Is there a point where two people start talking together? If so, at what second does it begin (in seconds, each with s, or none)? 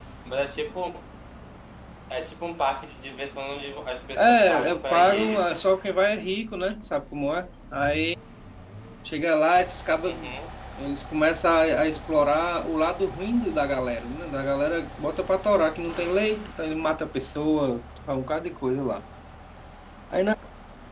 4.2 s